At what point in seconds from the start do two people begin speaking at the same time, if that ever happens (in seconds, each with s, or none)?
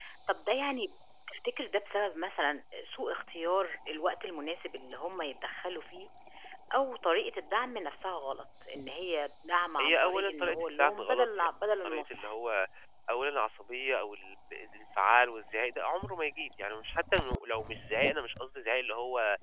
9.8 s